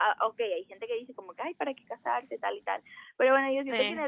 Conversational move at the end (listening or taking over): listening